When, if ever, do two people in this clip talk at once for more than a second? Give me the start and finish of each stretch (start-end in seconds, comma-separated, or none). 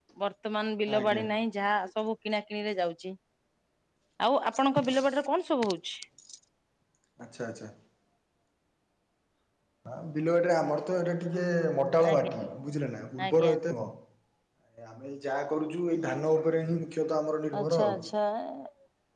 none